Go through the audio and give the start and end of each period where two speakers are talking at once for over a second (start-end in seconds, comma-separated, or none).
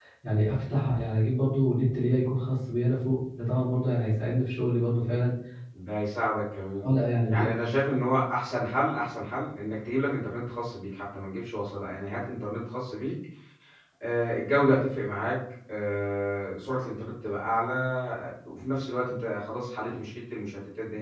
none